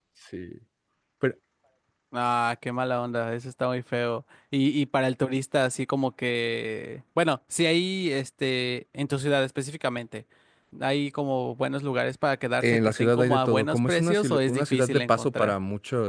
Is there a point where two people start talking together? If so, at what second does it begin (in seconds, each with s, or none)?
12.6 s